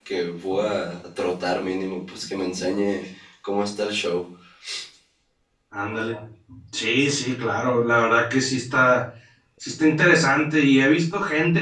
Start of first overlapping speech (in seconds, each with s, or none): none